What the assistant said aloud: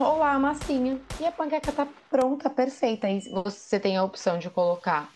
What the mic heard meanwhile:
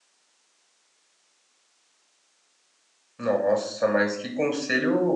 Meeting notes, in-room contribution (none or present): present